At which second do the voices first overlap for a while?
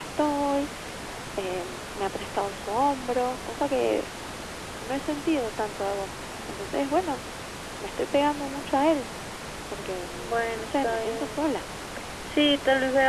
10.2 s

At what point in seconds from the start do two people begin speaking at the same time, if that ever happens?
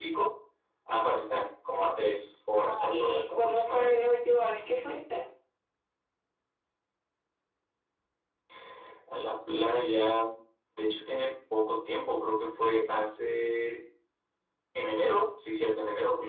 2.6 s

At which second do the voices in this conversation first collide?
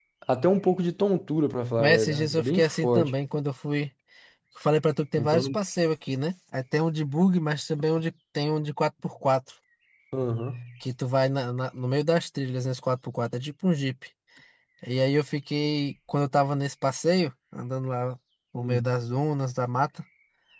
1.8 s

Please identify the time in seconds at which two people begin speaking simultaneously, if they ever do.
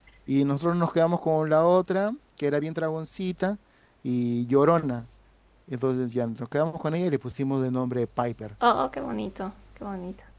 none

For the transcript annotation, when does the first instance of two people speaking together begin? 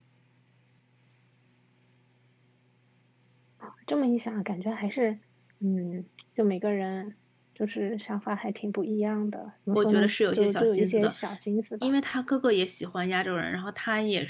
9.7 s

